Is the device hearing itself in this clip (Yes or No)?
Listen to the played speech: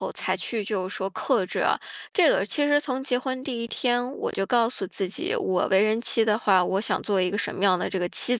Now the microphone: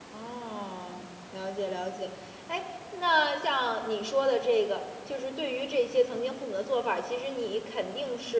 No